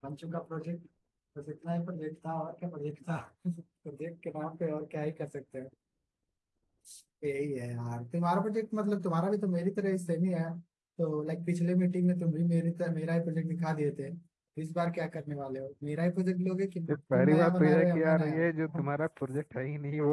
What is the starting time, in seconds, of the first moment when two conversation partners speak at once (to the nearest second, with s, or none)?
17 s